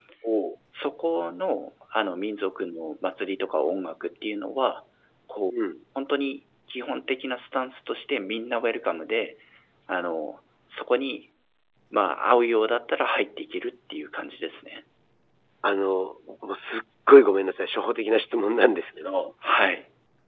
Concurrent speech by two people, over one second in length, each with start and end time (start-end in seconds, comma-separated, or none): none